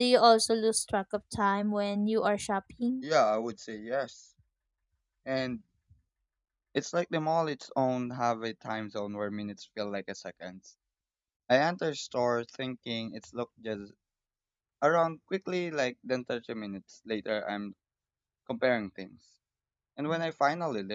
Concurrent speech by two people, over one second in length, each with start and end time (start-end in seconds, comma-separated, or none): none